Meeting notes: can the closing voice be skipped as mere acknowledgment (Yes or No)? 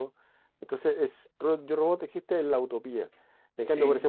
Yes